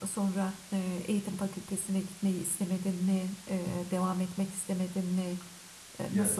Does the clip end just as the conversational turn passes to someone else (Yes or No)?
Yes